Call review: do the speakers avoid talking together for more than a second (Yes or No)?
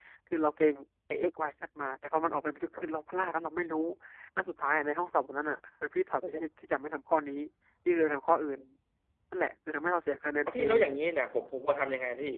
Yes